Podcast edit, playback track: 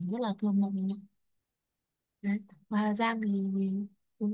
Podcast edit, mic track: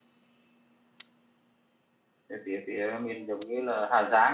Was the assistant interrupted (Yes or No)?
Yes